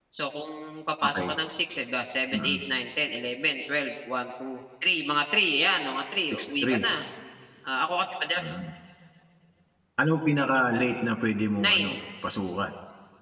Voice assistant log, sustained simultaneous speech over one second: none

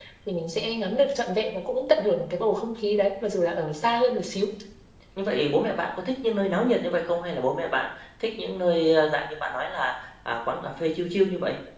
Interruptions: none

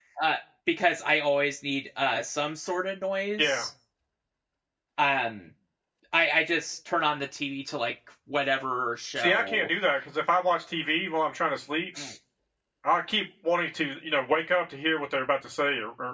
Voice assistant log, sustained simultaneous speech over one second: none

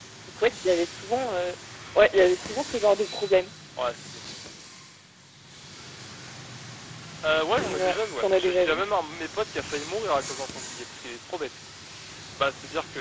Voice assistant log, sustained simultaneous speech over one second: present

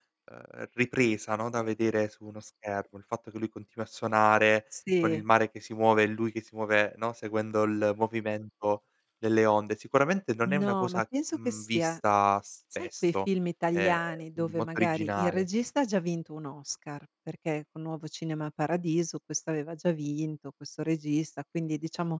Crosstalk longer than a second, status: present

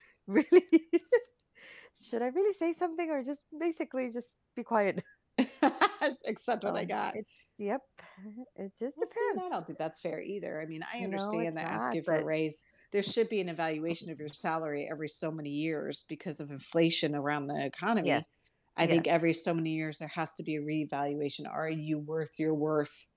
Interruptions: present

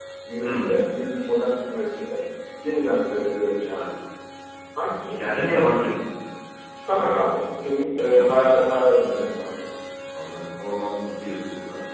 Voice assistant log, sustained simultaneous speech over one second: none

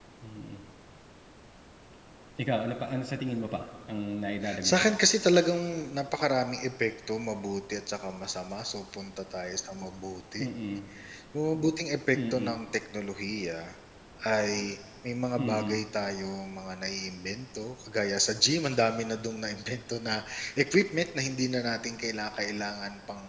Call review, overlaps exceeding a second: none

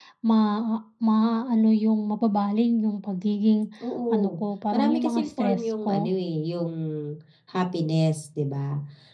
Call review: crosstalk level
present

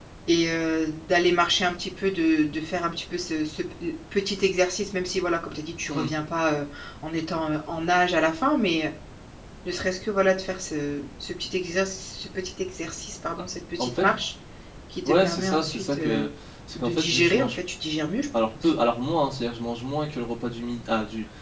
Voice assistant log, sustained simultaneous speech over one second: present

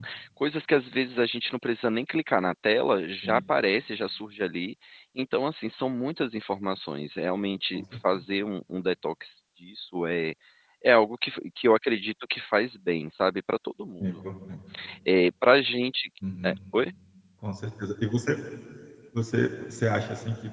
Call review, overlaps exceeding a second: none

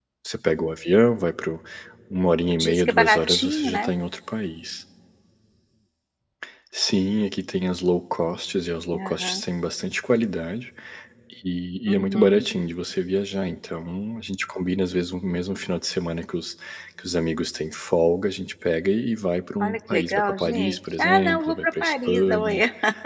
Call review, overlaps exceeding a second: present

